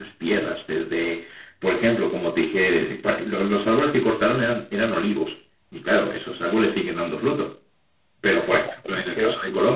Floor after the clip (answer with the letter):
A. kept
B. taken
A